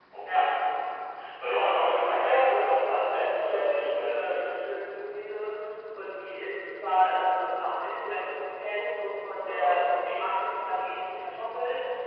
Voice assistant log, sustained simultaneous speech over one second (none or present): present